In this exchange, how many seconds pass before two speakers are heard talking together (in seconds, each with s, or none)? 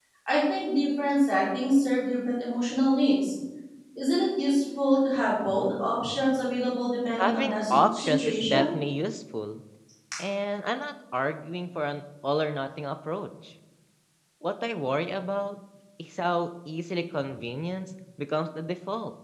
7.2 s